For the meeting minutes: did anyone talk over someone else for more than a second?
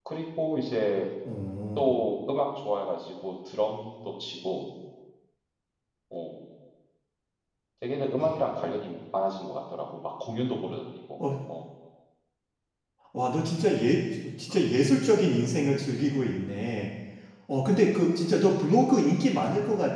No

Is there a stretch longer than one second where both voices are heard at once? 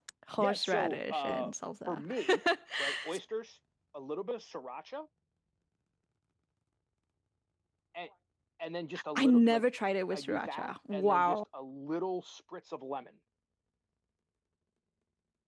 Yes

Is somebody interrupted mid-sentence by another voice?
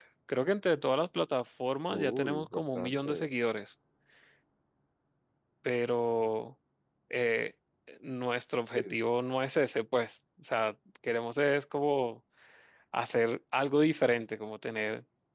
Yes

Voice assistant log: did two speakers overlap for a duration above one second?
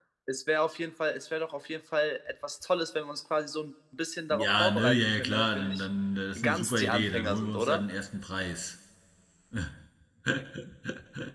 Yes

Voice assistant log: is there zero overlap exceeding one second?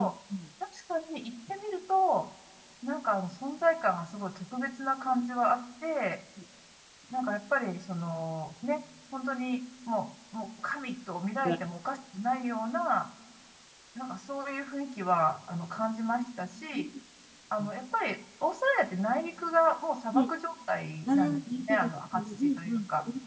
No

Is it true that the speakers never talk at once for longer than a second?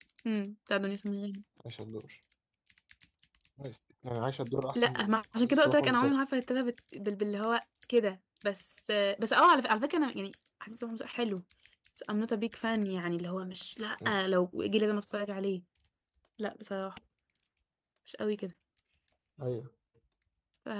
No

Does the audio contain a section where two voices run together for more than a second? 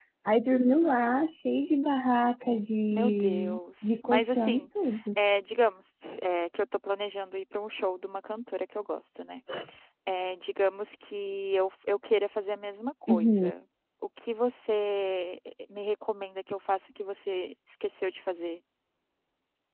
Yes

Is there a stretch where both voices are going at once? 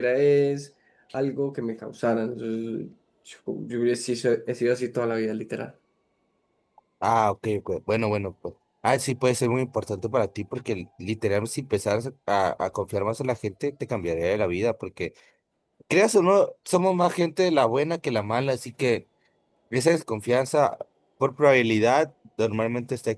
No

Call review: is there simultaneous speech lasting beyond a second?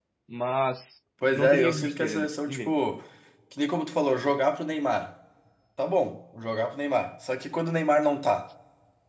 Yes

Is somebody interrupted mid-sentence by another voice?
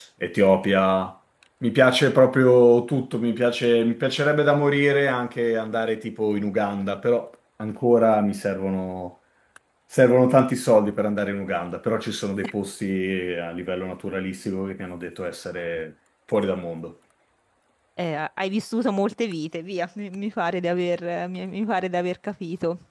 No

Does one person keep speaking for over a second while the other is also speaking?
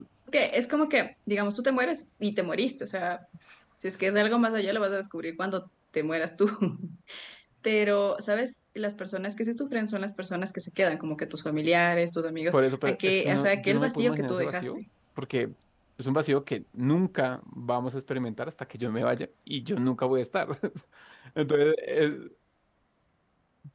Yes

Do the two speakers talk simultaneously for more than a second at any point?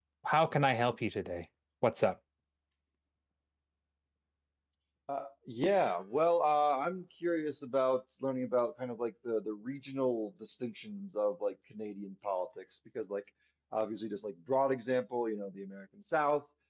No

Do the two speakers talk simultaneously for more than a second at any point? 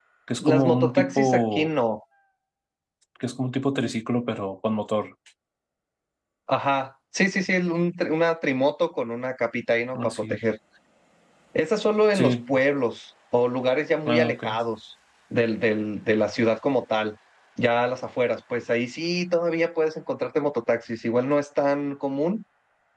Yes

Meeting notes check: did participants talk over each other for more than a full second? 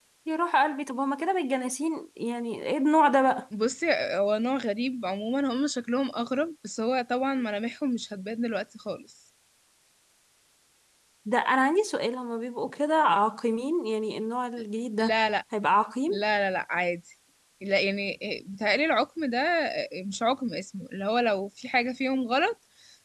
No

